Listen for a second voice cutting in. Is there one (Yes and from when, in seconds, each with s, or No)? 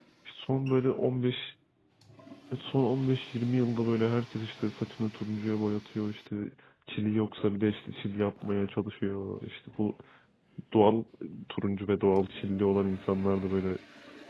No